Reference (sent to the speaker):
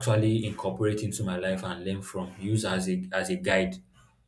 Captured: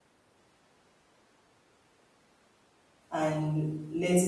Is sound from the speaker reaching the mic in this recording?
No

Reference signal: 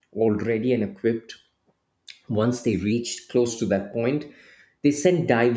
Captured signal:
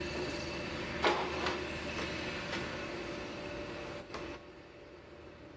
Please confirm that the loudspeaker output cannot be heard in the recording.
Yes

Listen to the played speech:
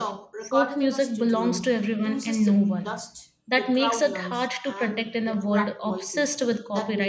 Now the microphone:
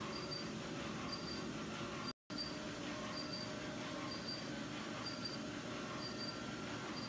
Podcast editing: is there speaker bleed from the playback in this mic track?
No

